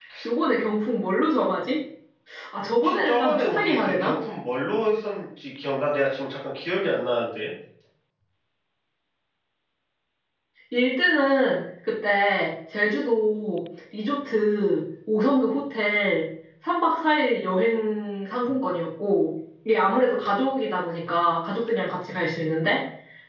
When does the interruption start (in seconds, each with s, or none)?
2.8 s